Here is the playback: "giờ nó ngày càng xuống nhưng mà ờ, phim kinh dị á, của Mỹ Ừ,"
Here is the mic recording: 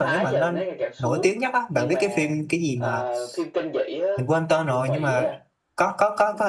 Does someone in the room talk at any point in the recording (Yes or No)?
Yes